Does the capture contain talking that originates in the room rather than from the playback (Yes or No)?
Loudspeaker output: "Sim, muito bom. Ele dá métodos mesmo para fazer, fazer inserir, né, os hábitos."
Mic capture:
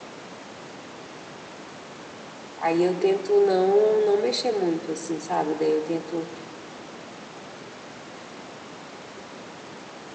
Yes